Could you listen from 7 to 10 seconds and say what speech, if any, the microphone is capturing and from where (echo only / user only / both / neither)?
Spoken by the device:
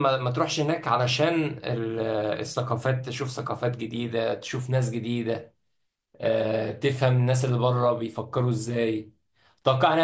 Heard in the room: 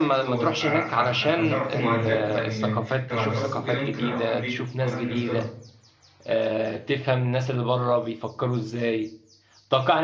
echo only